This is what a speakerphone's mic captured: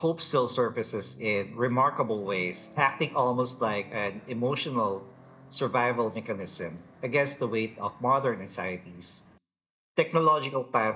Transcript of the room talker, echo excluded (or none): none